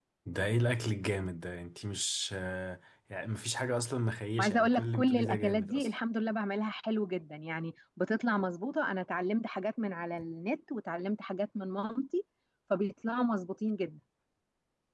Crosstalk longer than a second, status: present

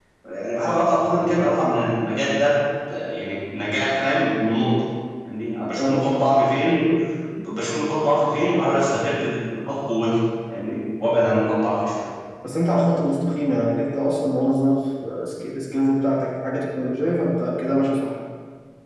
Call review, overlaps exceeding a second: none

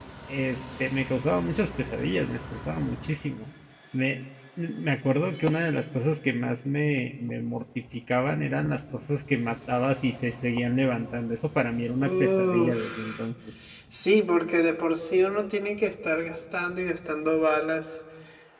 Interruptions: present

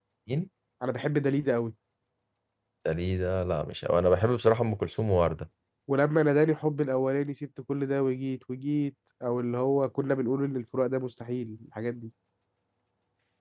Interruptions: none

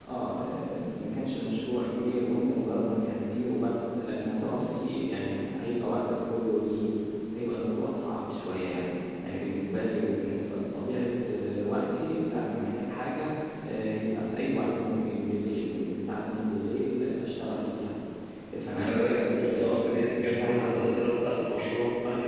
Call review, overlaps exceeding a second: present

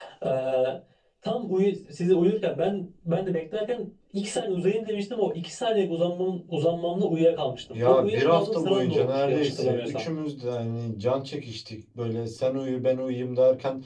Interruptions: present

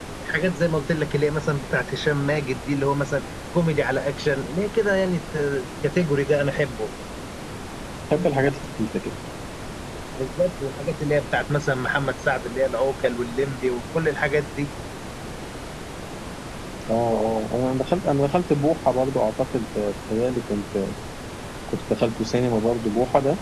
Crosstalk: none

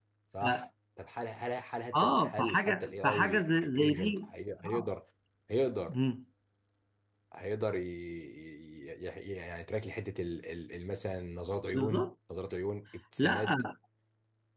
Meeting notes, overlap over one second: present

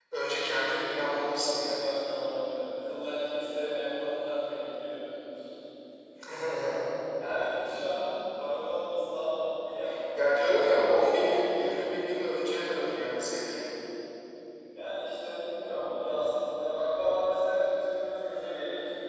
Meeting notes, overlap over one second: none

